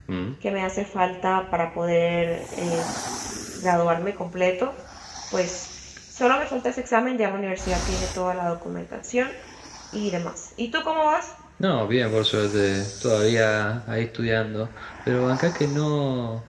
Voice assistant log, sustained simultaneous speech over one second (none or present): none